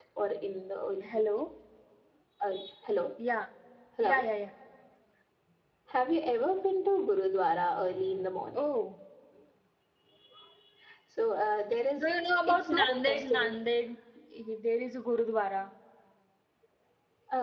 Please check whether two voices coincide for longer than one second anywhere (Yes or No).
Yes